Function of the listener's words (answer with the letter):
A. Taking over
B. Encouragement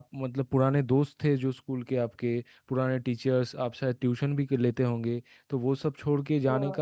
B